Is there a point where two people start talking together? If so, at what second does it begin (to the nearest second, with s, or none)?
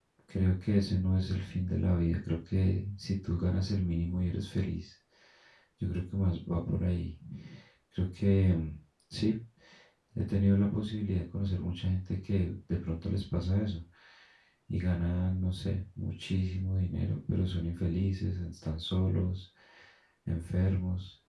none